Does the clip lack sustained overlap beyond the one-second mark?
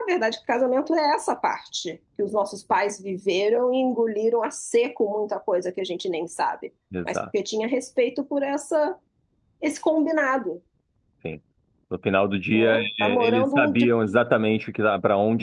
No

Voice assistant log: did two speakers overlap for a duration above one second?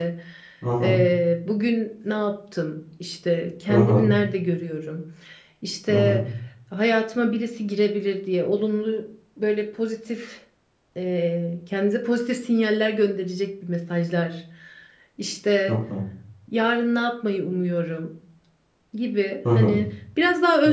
No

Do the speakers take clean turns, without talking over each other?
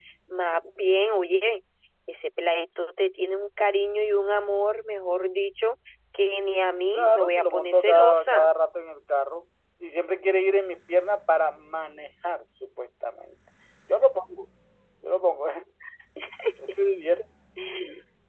No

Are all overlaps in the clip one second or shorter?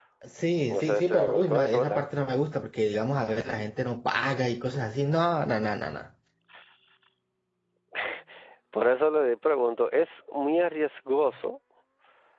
No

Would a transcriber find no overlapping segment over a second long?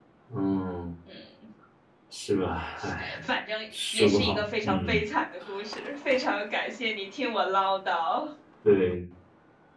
No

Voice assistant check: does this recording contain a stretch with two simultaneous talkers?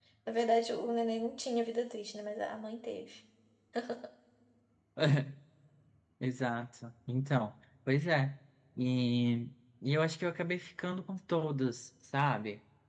No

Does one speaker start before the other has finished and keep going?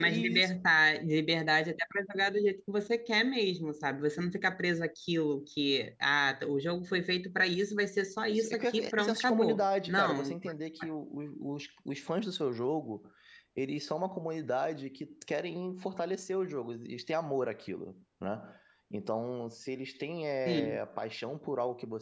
Yes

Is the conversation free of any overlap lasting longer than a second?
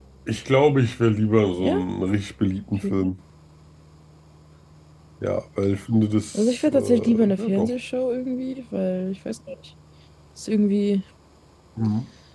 No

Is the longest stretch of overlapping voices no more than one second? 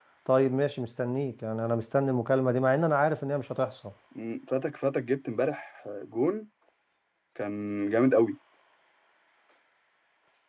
Yes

